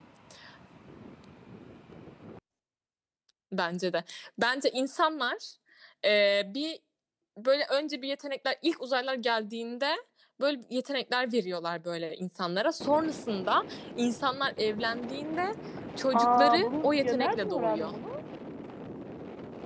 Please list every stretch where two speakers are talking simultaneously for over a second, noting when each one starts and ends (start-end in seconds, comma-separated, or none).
16.1-17.9